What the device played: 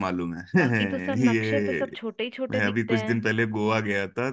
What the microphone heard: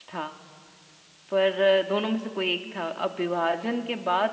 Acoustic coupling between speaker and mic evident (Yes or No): No